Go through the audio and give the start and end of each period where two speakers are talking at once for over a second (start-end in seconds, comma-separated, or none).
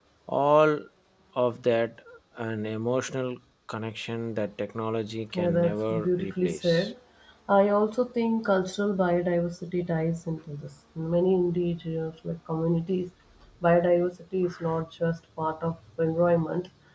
5.3-6.9